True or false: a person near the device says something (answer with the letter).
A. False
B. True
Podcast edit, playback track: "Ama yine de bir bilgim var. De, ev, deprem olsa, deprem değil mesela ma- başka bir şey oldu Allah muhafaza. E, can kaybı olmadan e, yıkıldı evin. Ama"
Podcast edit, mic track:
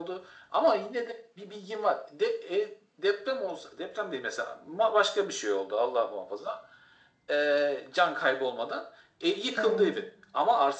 B